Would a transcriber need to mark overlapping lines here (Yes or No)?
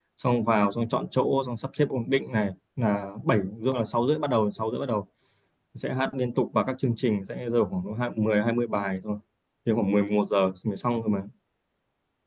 No